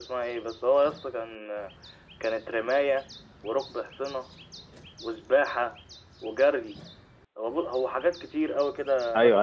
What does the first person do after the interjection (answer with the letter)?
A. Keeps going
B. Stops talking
B